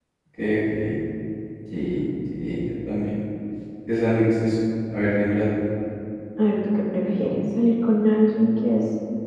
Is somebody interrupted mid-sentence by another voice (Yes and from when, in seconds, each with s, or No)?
No